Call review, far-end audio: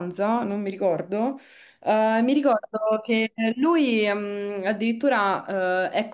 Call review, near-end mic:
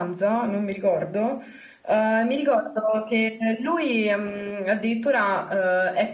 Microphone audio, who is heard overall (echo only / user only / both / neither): echo only